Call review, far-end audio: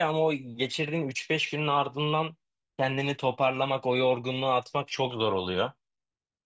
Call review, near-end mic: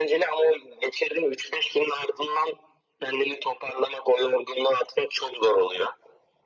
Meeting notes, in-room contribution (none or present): none